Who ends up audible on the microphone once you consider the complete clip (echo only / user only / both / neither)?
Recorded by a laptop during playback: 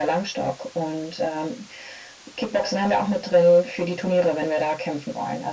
echo only